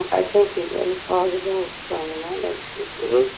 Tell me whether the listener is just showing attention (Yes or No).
No